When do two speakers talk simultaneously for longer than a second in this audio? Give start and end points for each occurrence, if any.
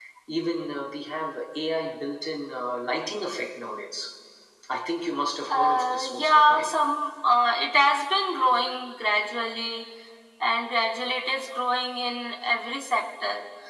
5.5-6.8

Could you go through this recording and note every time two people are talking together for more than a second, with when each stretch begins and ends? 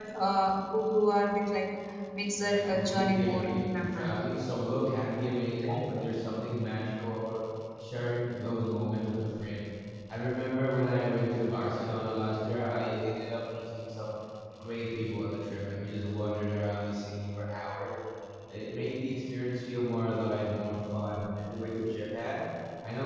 2.4-4.3

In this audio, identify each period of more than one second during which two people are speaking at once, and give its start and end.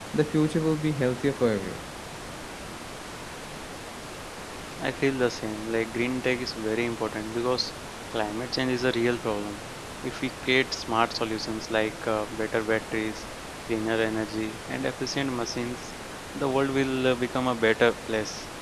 none

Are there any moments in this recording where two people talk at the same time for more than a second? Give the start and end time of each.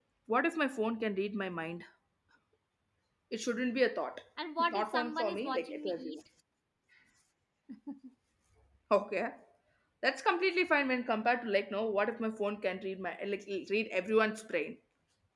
4.6-6.2

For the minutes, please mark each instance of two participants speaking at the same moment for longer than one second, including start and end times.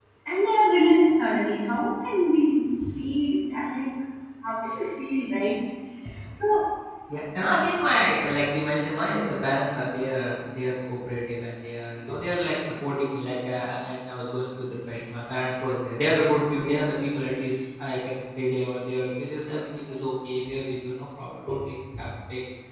none

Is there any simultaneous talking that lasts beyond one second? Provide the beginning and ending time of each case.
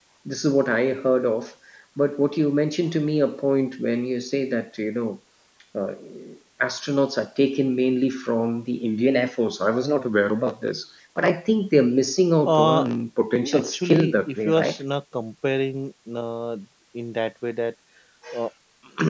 13.5-14.8

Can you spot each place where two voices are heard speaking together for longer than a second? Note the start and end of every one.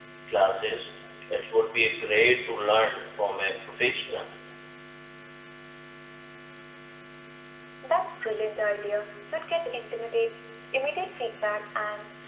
none

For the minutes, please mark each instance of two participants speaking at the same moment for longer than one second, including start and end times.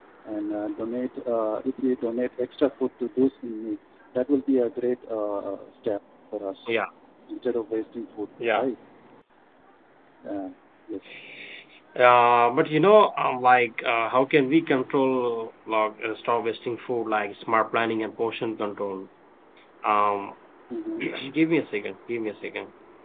none

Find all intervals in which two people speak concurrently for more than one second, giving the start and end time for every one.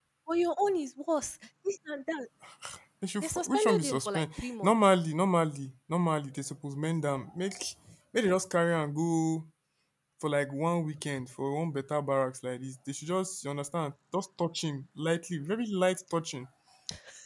3.2-4.8

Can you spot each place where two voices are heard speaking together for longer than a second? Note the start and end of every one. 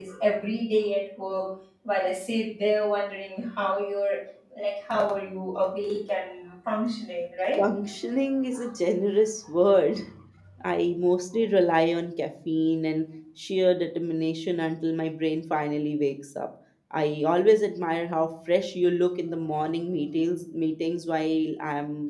none

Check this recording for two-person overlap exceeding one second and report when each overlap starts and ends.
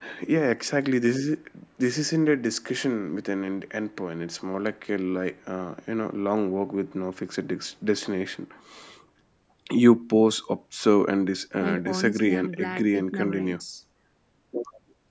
11.6-13.6

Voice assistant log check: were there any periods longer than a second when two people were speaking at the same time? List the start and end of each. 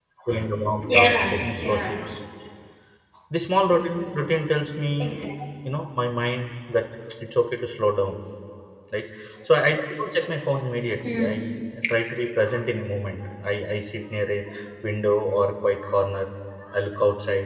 0.9-2.1

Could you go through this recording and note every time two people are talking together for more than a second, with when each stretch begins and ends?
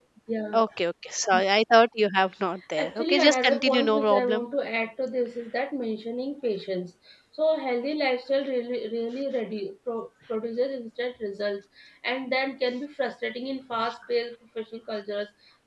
2.8-4.4

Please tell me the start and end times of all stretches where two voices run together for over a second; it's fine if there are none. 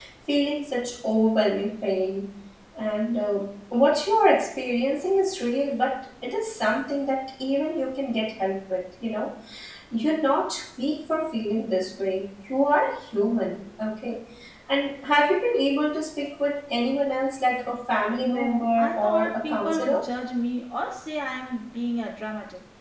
18.2-20.1

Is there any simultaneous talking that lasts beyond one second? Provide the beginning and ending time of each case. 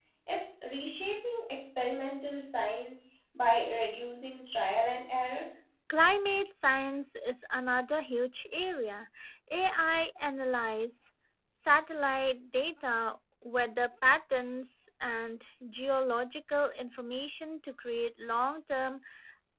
none

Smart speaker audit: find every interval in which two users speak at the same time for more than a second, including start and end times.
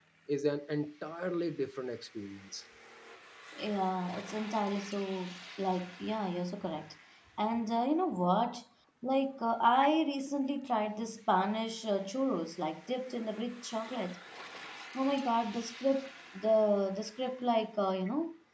none

